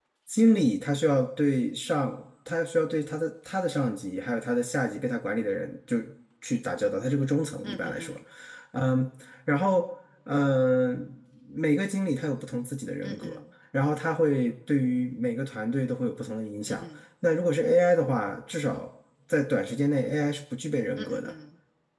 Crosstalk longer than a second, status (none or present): none